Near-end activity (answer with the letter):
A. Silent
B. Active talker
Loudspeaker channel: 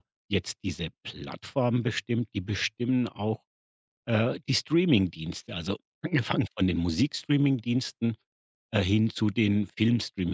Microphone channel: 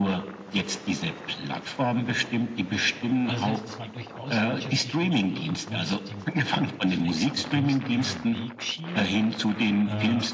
B